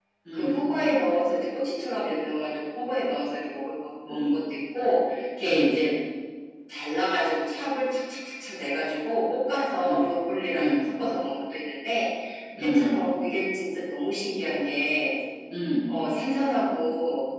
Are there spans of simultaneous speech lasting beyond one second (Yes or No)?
No